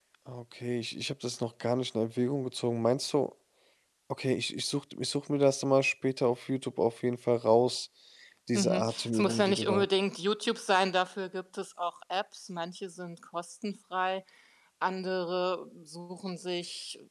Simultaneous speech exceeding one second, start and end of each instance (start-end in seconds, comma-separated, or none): 8.5-9.8